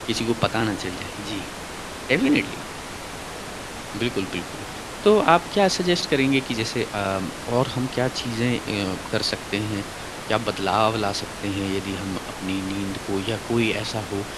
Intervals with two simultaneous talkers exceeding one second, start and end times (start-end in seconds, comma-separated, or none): none